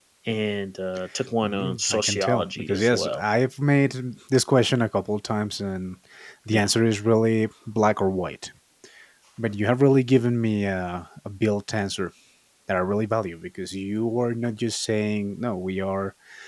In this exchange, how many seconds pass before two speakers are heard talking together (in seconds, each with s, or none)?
1.4 s